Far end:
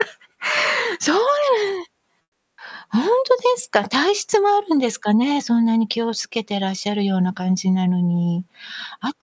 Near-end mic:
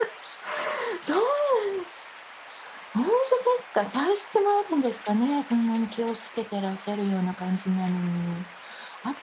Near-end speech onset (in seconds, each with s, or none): none